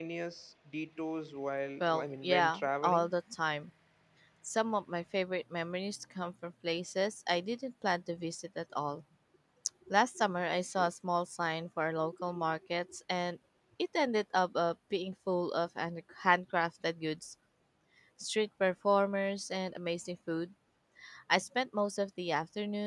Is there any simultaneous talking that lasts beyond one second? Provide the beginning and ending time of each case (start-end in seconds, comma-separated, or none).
1.8-3.1